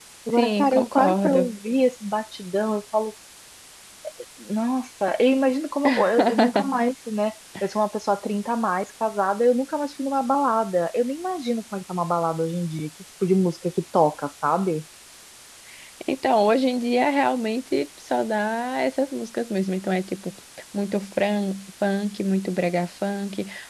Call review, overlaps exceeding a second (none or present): present